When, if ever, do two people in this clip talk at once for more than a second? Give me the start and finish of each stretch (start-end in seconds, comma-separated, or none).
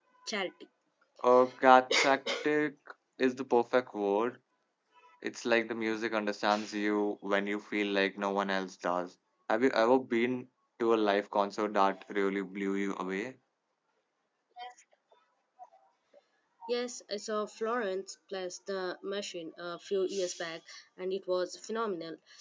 none